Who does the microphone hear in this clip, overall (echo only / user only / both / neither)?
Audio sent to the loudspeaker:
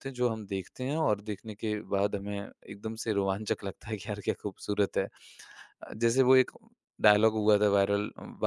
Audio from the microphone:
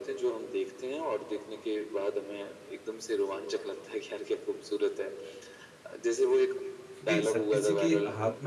both